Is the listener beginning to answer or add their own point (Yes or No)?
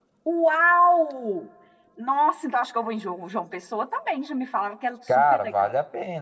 Yes